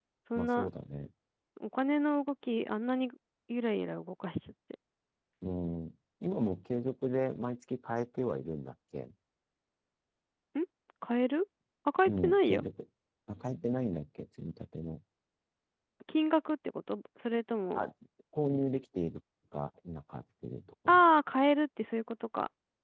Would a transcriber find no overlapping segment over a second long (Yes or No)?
Yes